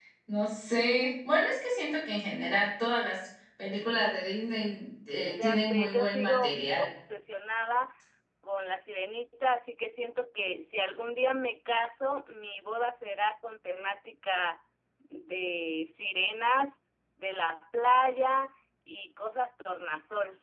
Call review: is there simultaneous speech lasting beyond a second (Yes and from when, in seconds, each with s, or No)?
Yes, from 5.2 s